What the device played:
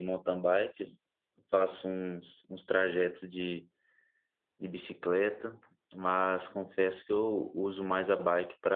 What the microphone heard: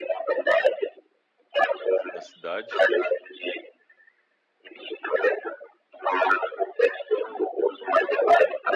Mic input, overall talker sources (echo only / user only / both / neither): both